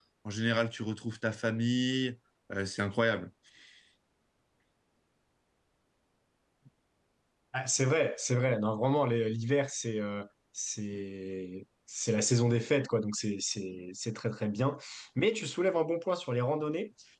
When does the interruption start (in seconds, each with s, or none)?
none